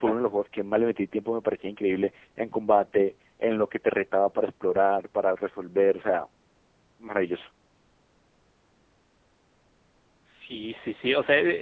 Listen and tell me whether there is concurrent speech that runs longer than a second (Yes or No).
No